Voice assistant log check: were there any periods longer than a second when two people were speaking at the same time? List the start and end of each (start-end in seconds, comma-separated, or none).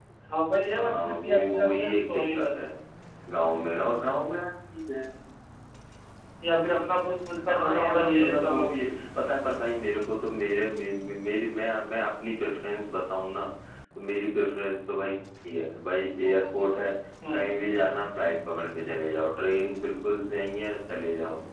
0.7-2.5, 7.5-8.7